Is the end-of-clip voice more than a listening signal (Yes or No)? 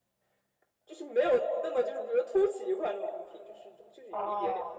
Yes